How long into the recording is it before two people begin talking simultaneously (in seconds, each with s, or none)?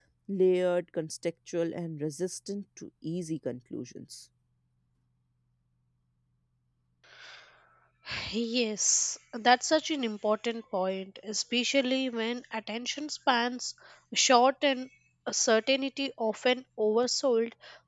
none